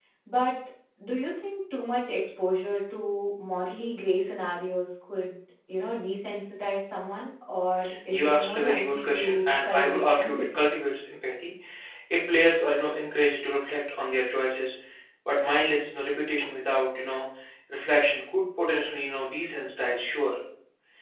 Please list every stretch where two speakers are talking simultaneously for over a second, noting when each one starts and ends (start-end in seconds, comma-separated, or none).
8.1-10.6